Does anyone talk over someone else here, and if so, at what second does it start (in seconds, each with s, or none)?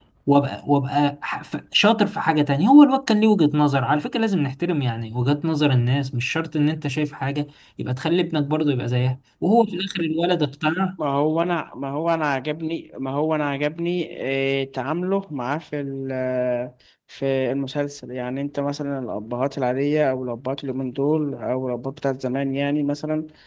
none